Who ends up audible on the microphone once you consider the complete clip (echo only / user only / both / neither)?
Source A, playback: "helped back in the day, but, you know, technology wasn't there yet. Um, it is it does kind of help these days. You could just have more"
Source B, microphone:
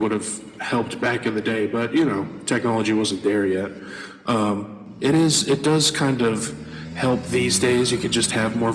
echo only